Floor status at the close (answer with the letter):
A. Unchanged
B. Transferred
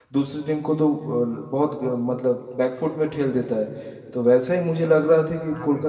A